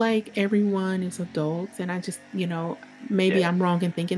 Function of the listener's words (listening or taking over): listening